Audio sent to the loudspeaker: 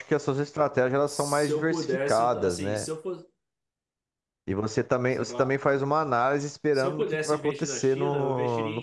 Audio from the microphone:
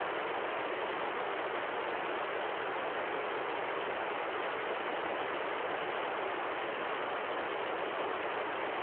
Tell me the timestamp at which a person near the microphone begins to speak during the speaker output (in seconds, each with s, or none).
none